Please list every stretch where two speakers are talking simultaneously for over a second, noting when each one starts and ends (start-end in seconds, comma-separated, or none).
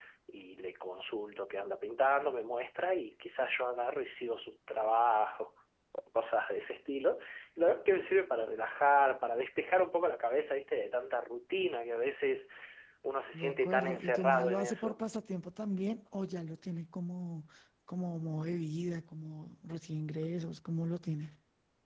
13.3-15.0